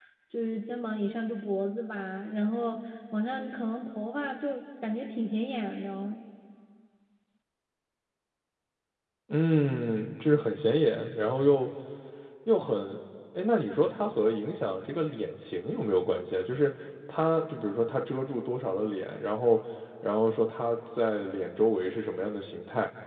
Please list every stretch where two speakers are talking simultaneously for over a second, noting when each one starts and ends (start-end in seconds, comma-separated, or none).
none